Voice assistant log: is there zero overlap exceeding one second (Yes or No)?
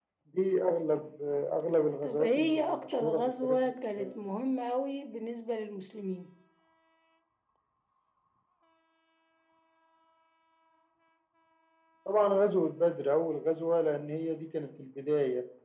No